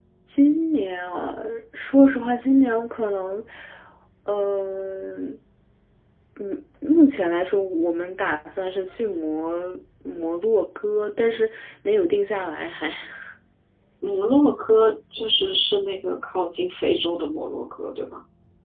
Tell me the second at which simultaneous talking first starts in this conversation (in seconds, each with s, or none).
none